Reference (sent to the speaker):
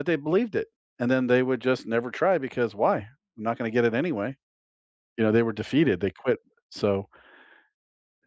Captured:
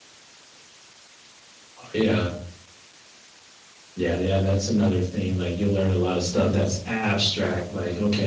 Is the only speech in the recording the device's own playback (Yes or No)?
No